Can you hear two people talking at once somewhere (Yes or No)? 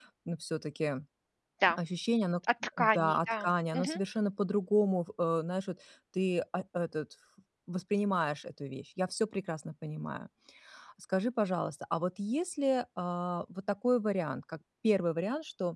Yes